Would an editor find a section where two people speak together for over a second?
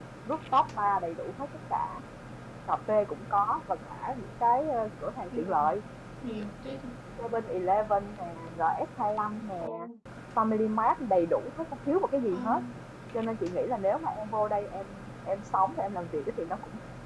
No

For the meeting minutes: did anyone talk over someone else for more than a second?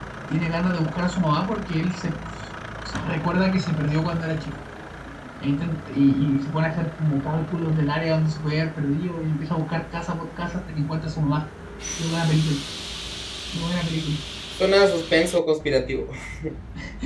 No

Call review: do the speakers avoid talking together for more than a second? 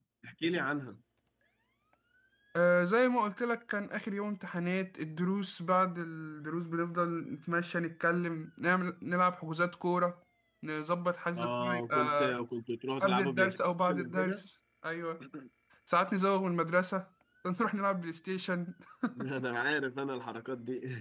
No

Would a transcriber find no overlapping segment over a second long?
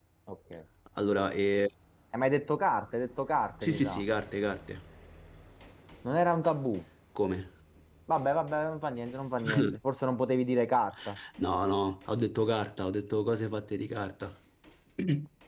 Yes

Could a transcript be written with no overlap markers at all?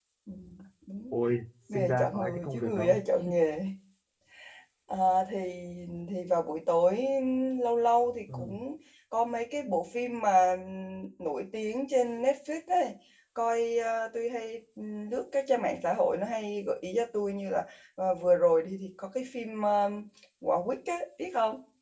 No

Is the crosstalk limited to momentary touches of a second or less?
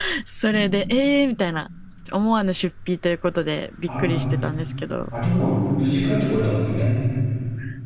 Yes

